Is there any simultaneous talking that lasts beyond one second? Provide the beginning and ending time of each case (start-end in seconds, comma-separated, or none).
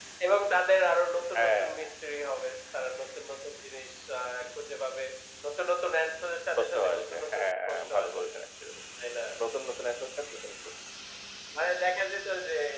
6.6-8.3